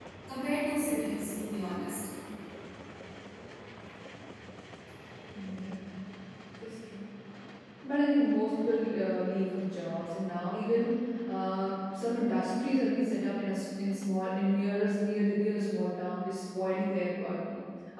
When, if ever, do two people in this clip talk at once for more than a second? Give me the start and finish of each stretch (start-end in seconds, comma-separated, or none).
none